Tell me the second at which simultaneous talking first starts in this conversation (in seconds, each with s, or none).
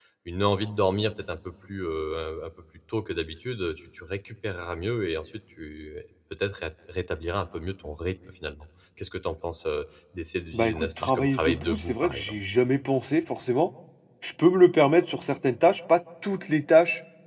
10.5 s